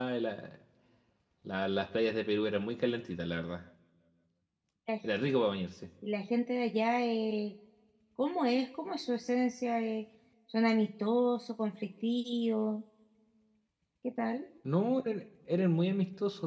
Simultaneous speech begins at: none

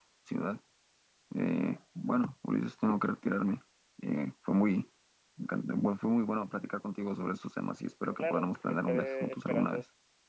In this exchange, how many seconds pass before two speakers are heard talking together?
8.2 s

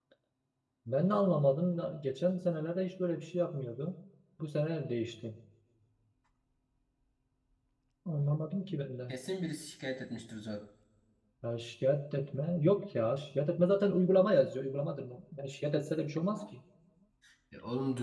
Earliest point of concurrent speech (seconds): none

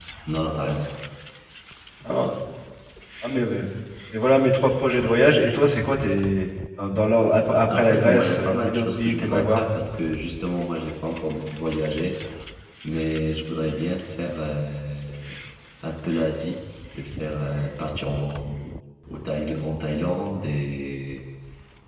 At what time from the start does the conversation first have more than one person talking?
7.7 s

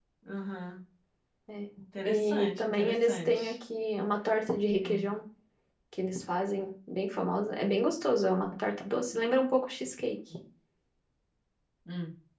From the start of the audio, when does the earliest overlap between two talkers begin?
2.0 s

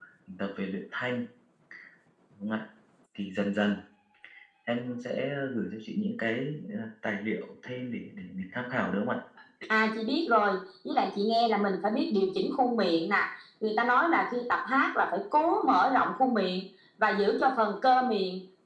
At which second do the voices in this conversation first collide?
none

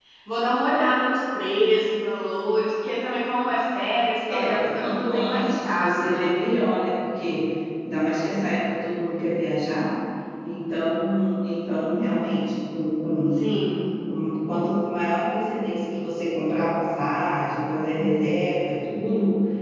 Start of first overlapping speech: 4.3 s

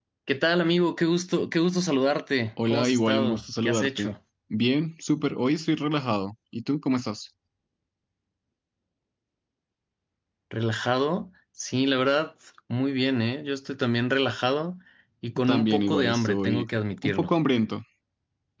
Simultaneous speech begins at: 2.7 s

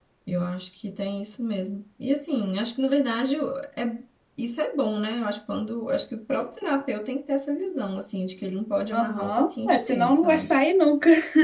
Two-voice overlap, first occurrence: 8.9 s

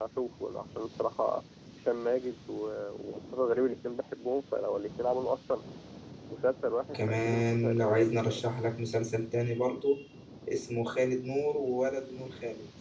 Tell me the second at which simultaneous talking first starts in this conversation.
6.9 s

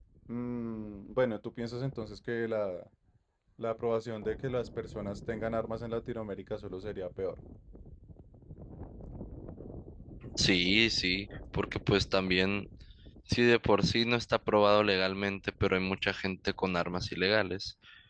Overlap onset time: none

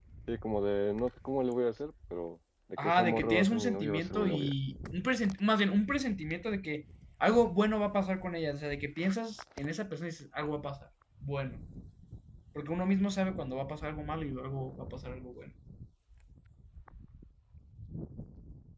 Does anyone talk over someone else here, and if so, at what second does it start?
2.8 s

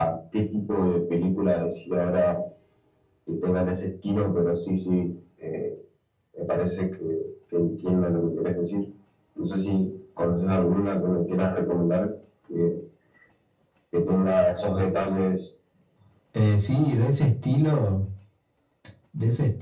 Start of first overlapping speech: none

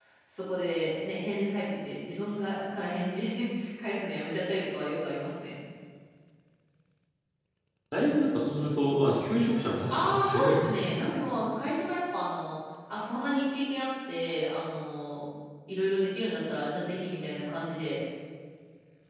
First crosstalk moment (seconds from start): 9.9 s

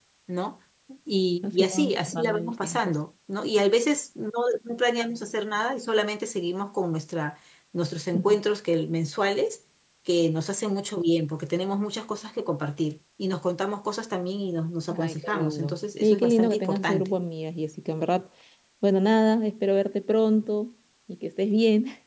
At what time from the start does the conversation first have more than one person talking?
1.4 s

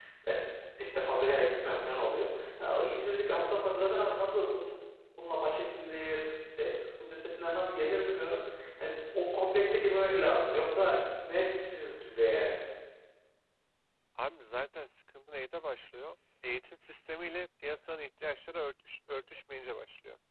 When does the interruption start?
none

